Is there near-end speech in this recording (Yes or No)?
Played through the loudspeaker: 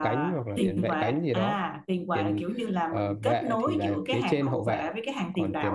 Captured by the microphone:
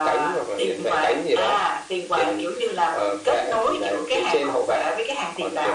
No